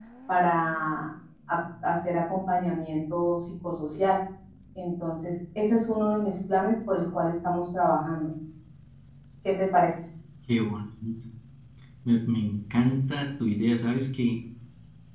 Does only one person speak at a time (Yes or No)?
Yes